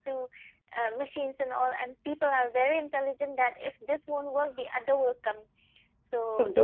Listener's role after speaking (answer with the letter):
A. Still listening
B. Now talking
A